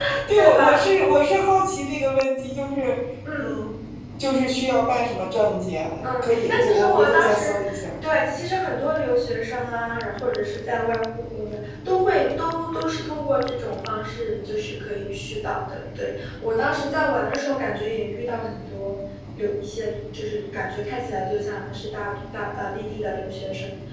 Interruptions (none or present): present